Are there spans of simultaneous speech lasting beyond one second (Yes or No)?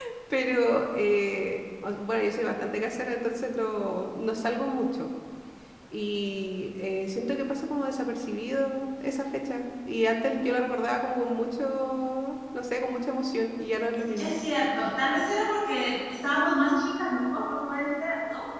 No